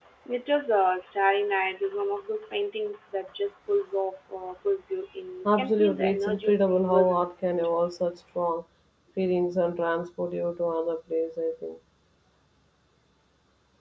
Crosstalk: present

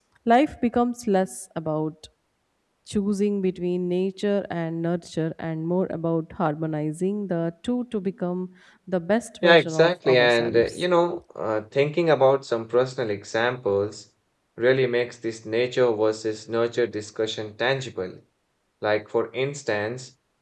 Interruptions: present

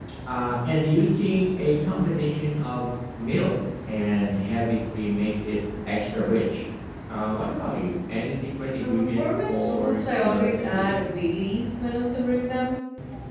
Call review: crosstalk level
present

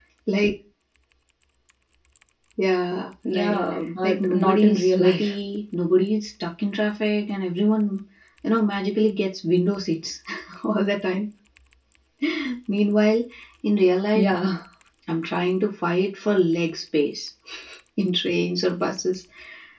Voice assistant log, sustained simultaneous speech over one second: present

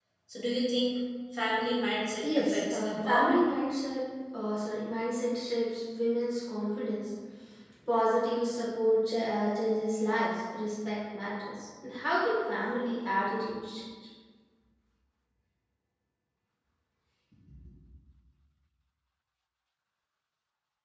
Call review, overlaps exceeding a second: present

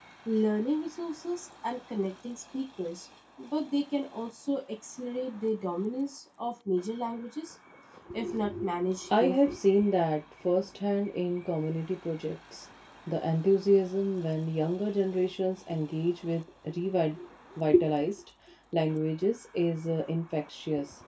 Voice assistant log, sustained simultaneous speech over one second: none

